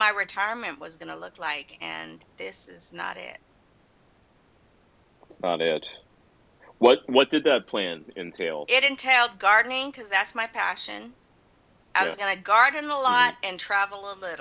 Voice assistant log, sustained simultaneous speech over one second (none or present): none